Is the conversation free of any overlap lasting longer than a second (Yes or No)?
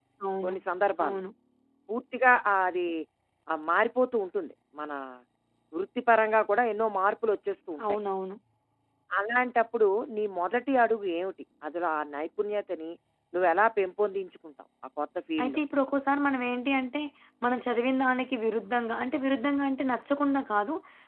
Yes